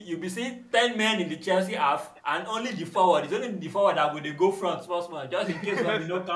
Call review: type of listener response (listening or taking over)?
taking over